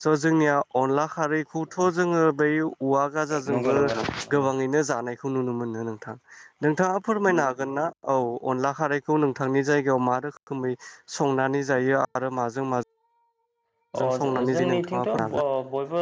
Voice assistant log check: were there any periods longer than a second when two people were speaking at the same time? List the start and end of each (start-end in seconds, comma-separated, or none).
14.0-15.3